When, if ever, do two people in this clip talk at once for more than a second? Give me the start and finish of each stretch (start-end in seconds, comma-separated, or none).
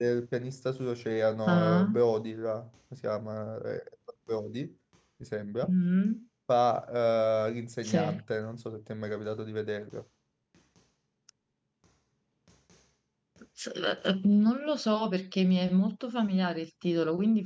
none